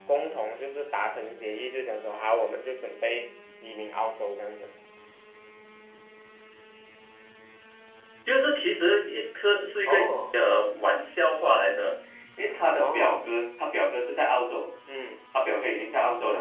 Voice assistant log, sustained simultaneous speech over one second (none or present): none